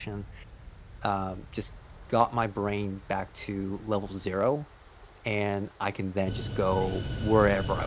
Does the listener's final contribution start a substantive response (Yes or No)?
No